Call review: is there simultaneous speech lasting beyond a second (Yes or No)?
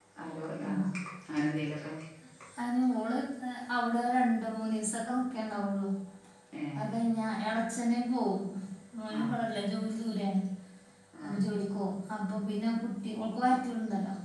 No